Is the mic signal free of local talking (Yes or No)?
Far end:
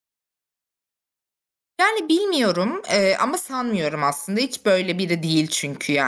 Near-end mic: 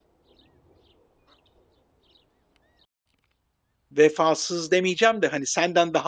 No